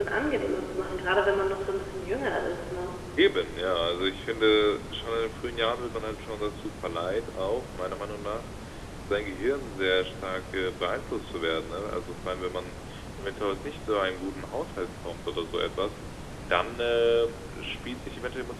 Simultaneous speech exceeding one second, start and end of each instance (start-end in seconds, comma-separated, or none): none